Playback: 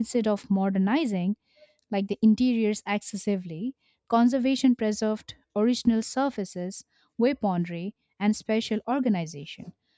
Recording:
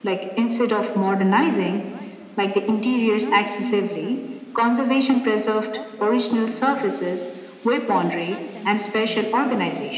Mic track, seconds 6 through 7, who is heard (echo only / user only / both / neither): both